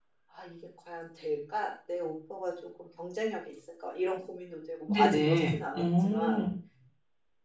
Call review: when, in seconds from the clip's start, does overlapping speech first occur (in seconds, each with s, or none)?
4.9 s